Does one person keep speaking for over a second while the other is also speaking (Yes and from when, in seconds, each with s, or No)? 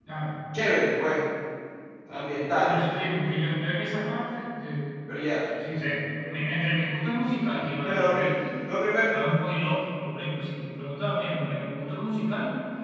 No